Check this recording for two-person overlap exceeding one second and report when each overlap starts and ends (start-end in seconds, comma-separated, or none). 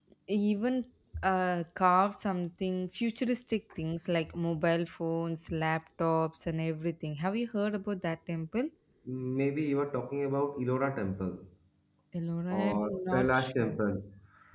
12.5-13.8